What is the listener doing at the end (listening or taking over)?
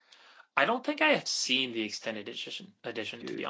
listening